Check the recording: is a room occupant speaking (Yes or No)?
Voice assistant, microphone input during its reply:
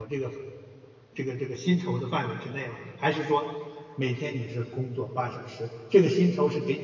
Yes